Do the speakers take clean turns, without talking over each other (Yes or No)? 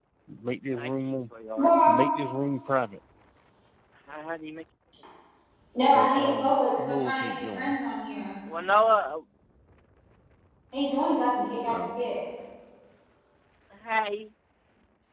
No